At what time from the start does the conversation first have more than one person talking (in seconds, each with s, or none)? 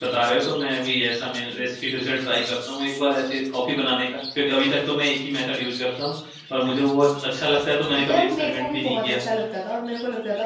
7.9 s